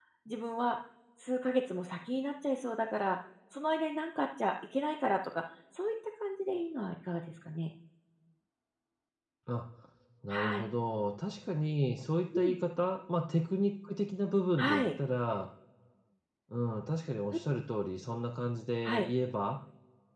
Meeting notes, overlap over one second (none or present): none